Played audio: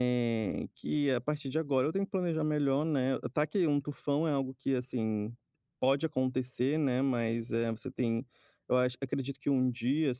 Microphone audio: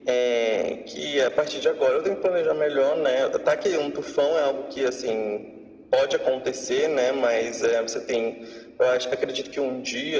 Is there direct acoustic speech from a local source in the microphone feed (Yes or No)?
No